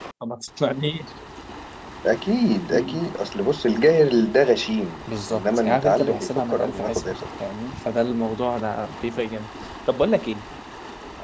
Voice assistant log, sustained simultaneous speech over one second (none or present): present